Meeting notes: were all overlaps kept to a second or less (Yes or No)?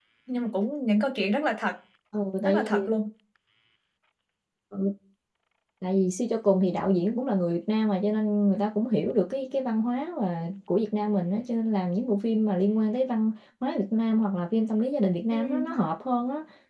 Yes